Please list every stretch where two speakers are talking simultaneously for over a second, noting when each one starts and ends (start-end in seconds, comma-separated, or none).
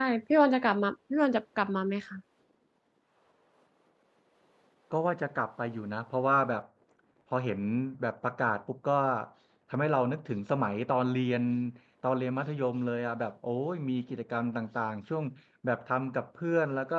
none